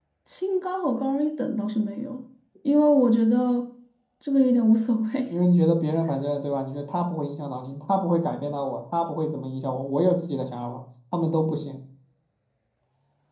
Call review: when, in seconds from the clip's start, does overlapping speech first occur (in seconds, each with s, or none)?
none